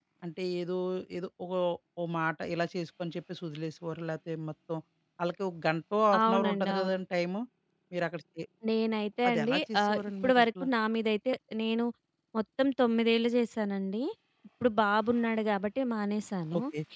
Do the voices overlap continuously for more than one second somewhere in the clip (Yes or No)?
Yes